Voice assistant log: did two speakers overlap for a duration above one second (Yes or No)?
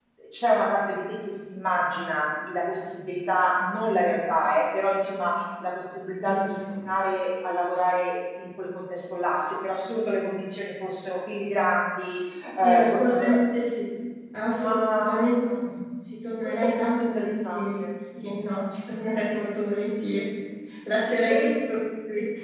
Yes